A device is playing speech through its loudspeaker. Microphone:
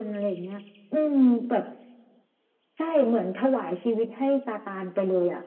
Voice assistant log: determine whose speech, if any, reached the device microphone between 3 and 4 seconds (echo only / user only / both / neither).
echo only